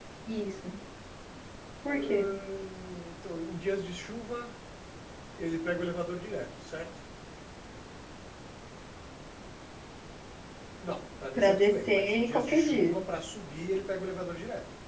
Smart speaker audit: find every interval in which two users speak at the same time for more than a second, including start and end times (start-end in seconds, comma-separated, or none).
11.3-13.0